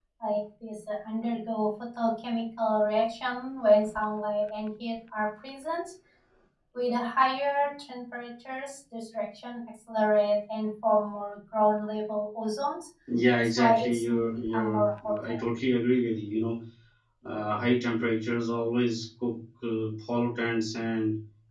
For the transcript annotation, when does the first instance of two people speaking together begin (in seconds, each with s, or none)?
13.3 s